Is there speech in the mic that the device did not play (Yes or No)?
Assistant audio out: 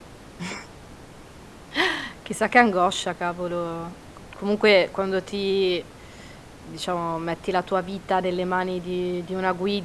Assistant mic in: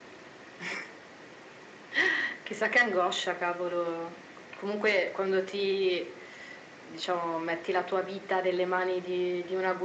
No